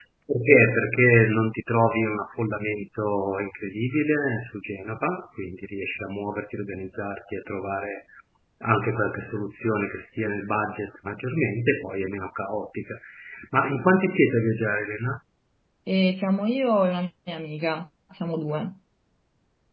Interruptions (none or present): none